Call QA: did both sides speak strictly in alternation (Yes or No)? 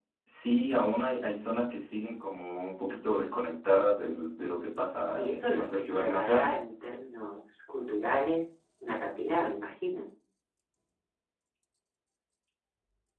No